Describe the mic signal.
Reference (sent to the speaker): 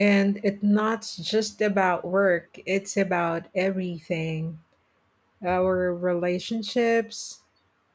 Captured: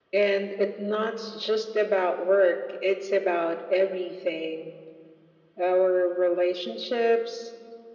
echo only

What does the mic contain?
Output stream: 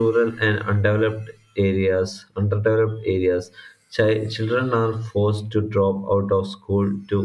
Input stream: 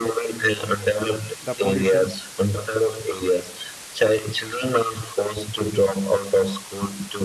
both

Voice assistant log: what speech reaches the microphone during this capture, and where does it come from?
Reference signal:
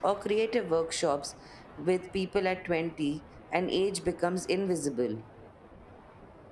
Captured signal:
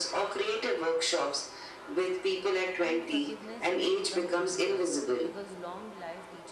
both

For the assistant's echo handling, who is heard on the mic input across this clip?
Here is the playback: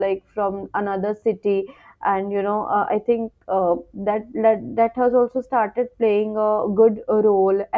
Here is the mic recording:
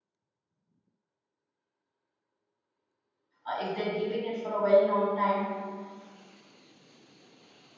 user only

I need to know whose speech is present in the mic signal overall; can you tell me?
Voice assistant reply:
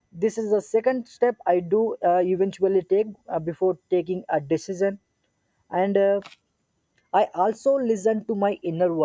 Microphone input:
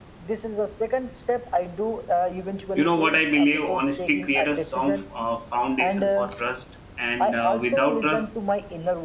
both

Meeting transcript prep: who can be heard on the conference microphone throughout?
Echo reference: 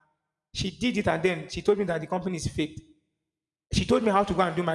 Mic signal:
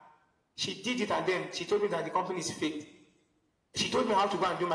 echo only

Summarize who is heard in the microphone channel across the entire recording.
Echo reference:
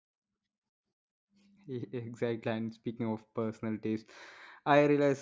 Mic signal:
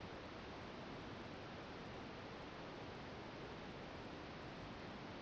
neither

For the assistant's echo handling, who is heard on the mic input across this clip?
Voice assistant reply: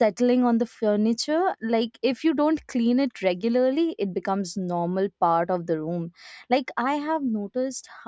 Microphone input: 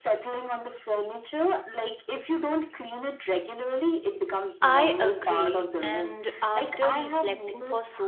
both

